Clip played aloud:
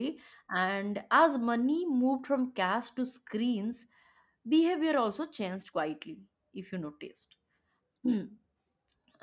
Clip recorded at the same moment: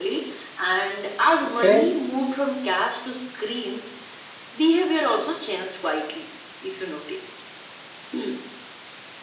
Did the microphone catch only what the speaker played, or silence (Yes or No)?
No